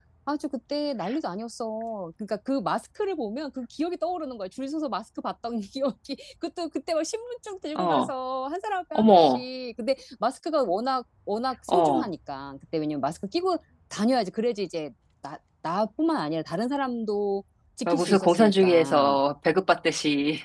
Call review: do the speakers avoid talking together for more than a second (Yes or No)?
No